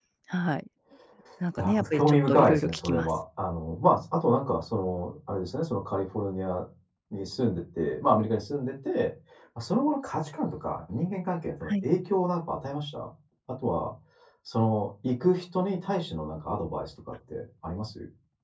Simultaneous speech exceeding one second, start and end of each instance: 1.6-3.1

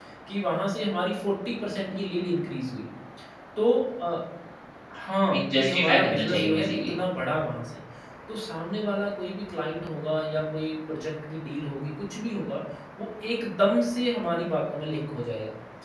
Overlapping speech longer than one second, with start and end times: 5.3-6.9

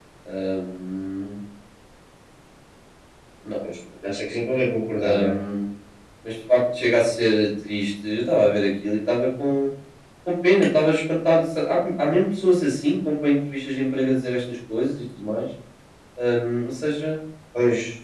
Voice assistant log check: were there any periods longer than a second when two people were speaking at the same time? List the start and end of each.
none

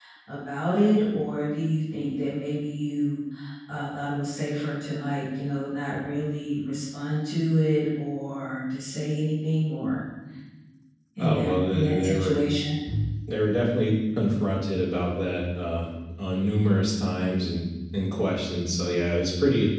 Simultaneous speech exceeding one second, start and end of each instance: 11.2-12.4

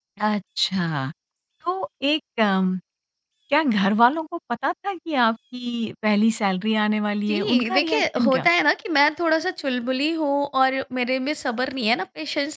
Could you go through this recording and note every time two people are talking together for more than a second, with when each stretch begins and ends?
7.3-8.5

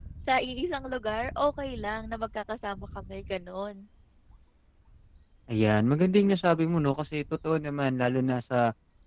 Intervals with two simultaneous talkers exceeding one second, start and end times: none

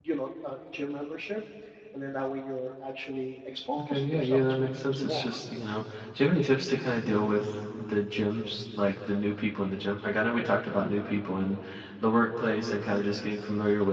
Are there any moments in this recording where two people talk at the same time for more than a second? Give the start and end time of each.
3.8-5.4

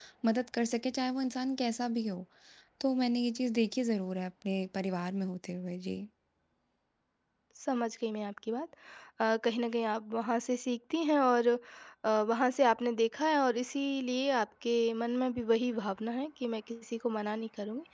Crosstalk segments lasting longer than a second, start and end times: none

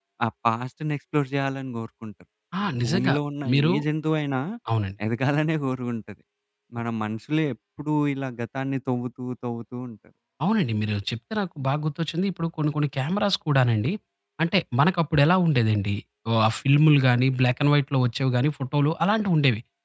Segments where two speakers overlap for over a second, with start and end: none

